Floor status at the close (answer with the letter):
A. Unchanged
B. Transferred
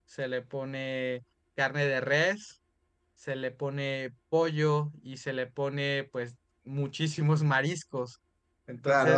B